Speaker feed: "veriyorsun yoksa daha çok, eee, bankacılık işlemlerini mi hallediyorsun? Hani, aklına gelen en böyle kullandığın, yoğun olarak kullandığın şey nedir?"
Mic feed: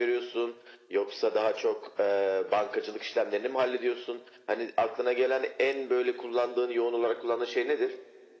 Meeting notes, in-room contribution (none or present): none